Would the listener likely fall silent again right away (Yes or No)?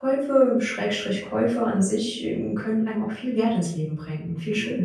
No